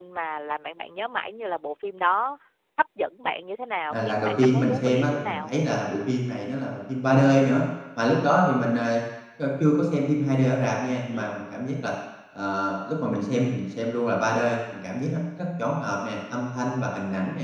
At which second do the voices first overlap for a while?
3.9 s

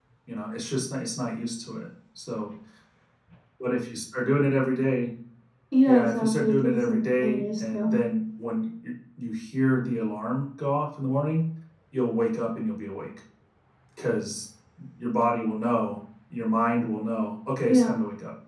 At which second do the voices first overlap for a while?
5.9 s

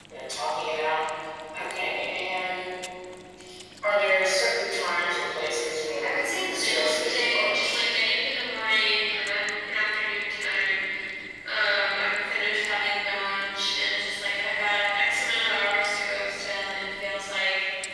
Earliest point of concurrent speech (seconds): 6.0 s

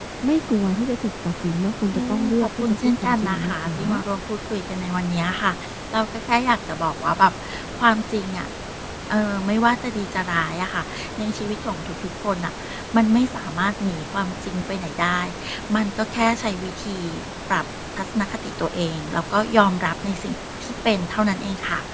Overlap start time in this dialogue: 1.9 s

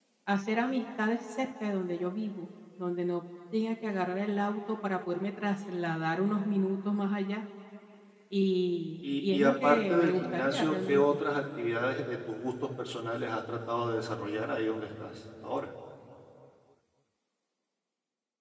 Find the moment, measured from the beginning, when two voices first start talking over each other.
9.0 s

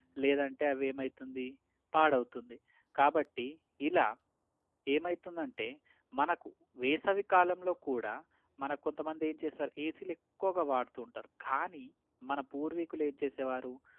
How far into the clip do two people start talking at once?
none

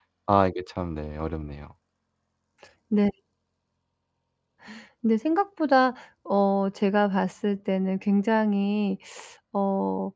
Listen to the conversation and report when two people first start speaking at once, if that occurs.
none

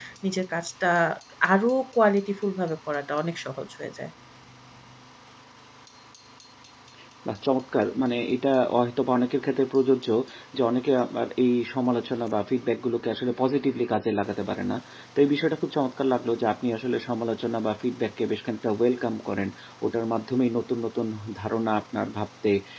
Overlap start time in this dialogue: none

